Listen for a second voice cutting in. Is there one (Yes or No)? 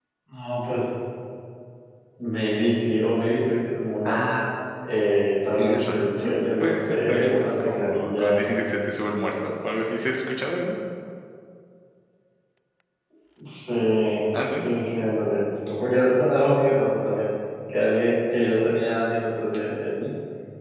Yes